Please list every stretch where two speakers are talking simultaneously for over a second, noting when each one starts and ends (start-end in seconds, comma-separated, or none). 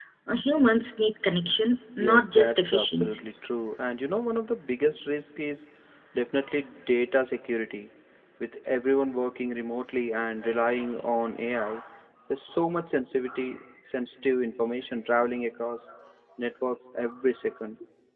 2.0-3.2